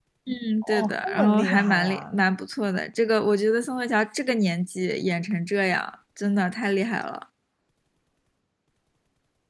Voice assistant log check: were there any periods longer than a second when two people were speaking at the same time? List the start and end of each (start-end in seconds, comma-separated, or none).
0.6-2.2